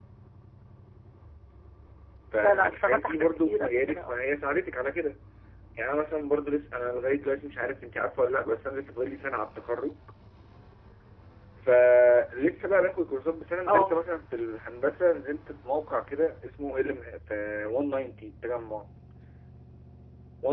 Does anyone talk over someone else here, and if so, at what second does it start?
2.4 s

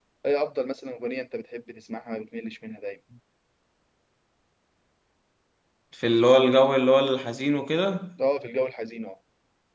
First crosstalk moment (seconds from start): none

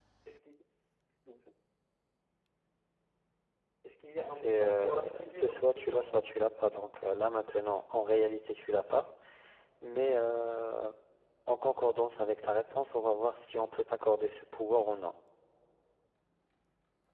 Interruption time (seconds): 4.2 s

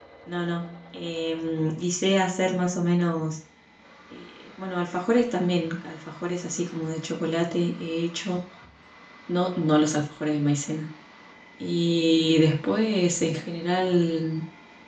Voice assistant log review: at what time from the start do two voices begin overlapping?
none

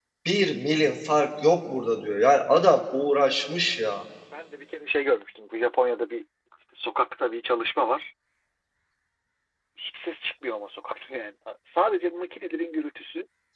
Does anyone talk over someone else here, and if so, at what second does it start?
none

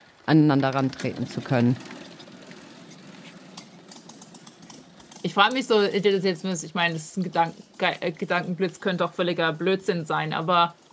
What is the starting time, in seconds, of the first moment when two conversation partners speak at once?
none

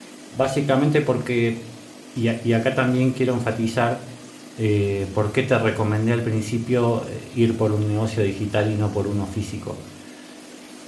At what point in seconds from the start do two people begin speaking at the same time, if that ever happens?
none

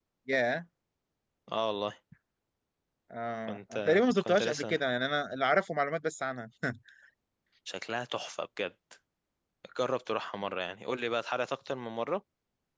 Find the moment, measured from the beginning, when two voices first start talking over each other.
3.5 s

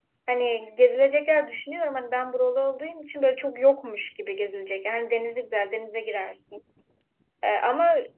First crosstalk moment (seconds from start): none

